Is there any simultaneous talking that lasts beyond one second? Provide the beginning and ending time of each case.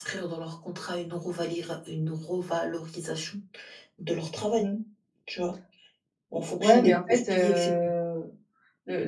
6.3-7.7

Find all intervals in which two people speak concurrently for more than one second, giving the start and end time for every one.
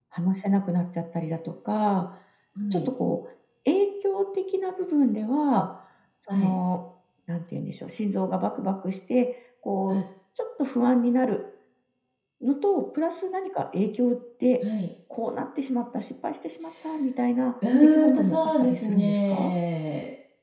17.8-19.5

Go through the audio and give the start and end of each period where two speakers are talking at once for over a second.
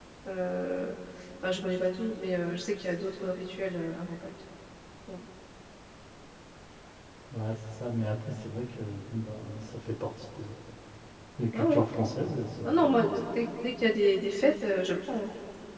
none

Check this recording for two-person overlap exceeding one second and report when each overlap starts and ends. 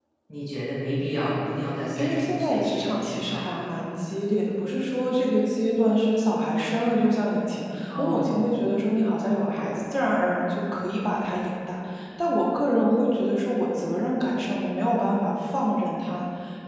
2.0-3.7

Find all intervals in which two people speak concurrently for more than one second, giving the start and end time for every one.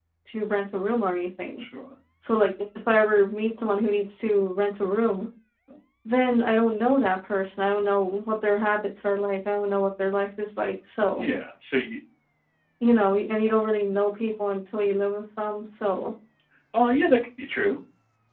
none

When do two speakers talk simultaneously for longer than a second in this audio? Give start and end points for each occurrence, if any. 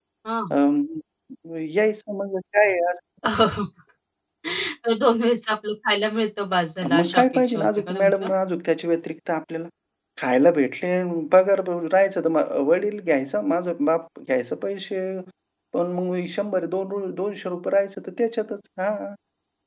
6.9-8.3

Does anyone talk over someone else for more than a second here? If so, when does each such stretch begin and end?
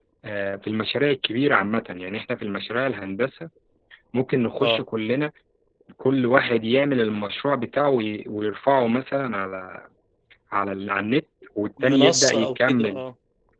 11.8-13.0

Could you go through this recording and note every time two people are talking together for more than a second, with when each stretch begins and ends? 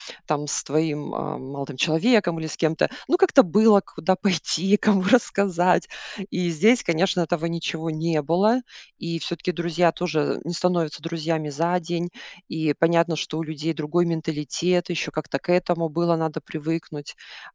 none

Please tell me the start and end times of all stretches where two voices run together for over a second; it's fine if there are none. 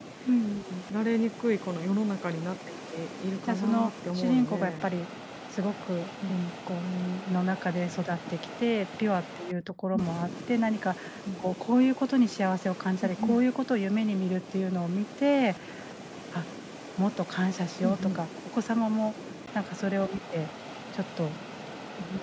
3.4-4.9

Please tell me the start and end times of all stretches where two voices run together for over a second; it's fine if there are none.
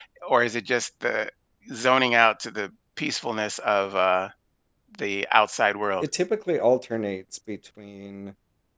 none

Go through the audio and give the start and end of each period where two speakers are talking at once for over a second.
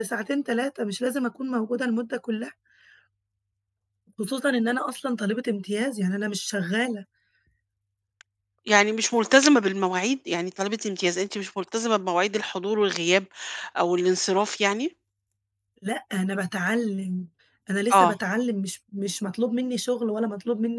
none

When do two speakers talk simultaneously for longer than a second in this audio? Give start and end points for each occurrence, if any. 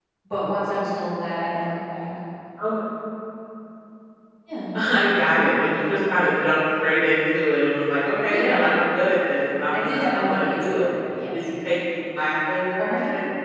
9.7-10.9

